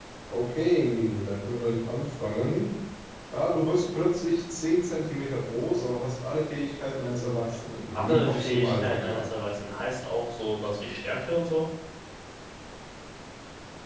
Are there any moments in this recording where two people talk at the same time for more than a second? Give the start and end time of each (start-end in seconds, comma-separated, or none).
7.9-9.3